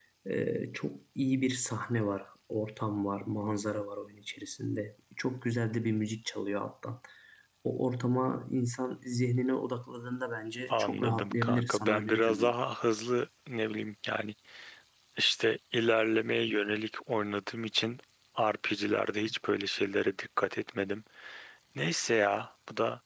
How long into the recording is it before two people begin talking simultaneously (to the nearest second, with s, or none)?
11 s